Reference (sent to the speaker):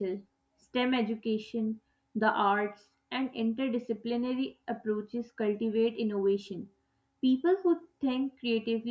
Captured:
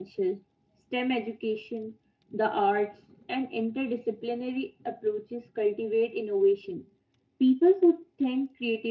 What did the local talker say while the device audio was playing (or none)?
none